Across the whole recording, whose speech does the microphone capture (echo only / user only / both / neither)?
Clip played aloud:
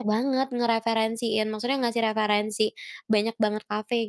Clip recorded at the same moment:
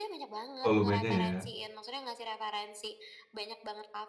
both